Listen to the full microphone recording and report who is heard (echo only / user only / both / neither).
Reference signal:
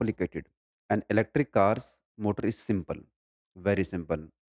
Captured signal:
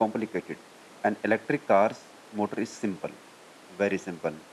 echo only